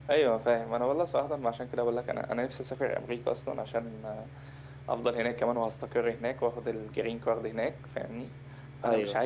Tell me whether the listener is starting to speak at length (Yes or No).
No